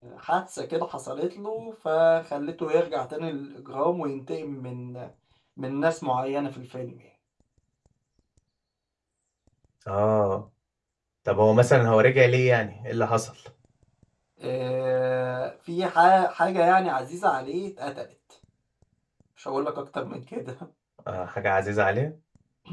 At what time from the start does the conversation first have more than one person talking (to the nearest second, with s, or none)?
none